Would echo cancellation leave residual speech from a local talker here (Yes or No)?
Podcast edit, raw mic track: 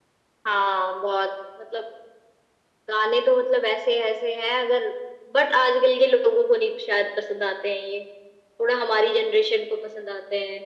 No